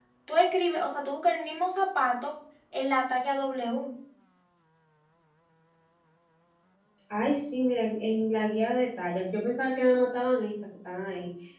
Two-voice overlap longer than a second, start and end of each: none

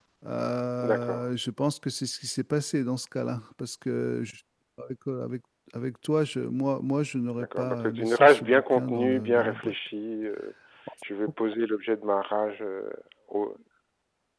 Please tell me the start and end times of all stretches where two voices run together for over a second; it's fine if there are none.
7.4-9.7

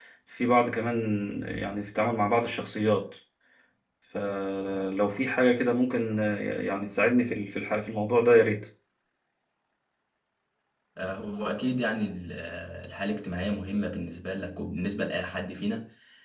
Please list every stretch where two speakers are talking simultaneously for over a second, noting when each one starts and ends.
none

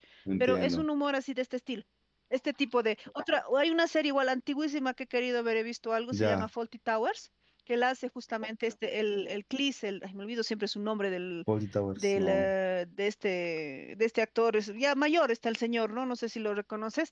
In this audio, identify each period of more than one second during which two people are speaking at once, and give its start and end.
none

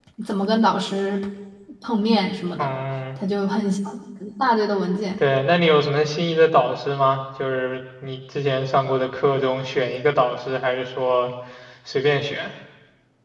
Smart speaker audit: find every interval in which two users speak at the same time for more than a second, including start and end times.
none

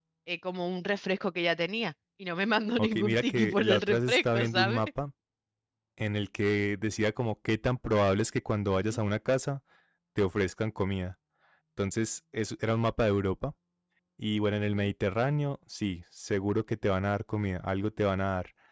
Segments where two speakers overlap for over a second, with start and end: 2.8-4.8

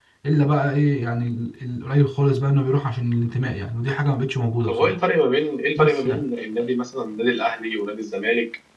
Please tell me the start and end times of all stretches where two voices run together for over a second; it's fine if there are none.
none

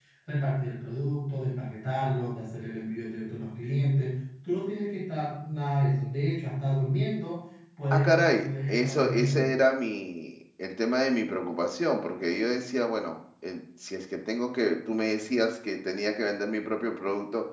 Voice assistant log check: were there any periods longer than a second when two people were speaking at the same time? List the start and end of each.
7.9-9.5

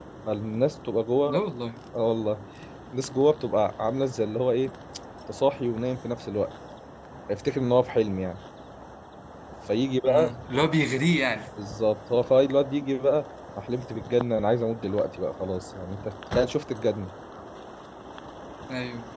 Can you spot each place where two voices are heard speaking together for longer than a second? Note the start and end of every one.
none

